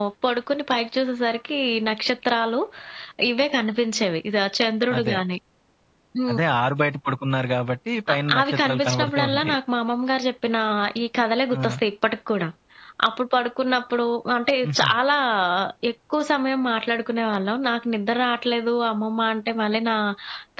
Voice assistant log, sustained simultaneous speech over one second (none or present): present